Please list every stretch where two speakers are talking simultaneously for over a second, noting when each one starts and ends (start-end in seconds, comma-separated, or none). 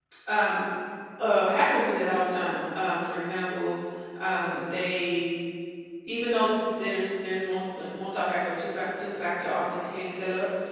none